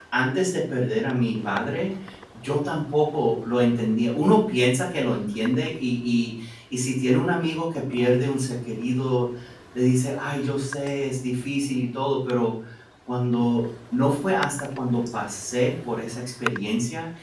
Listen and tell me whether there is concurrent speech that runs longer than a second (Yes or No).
No